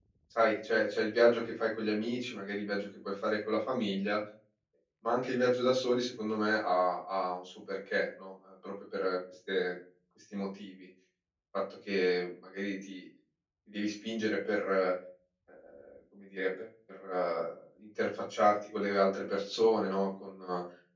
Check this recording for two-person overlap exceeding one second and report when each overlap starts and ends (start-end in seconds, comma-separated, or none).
none